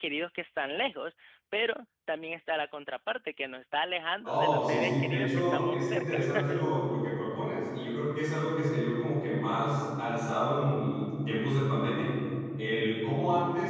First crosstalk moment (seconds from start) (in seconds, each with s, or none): 4.2 s